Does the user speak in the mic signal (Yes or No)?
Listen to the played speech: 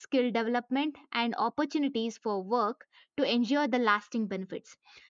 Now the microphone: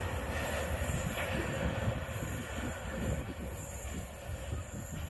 No